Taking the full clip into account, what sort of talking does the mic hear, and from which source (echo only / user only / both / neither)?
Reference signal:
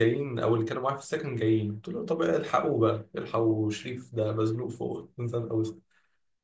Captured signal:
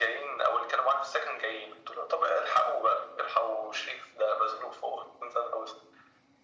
echo only